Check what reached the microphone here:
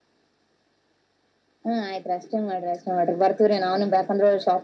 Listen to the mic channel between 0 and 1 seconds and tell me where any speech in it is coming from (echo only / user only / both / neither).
neither